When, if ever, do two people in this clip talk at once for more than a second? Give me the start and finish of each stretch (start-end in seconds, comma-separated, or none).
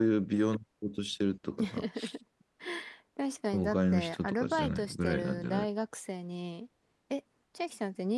3.5-5.6